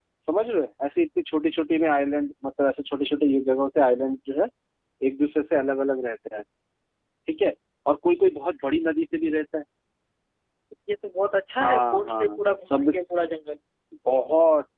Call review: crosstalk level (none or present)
present